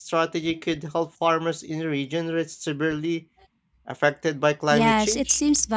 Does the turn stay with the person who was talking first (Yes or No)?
No